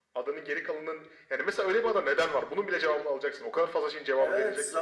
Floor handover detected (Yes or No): Yes